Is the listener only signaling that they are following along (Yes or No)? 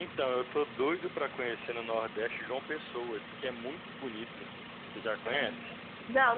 No